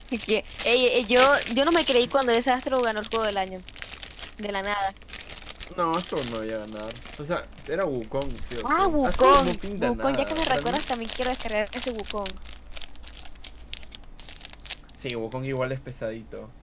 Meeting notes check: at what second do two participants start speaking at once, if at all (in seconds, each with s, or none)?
8.6 s